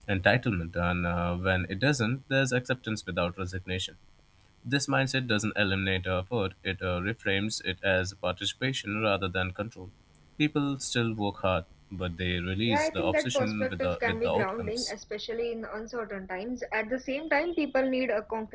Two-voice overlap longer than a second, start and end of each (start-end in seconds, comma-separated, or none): 12.7-14.9